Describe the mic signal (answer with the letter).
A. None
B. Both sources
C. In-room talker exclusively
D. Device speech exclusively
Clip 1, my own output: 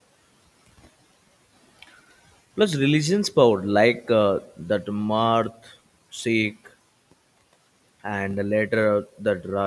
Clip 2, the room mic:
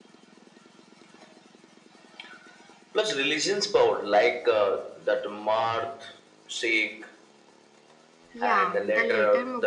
B